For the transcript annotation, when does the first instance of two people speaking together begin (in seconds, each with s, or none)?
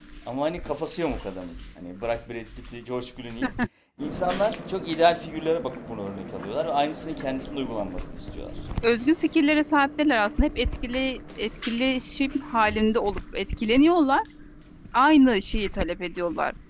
none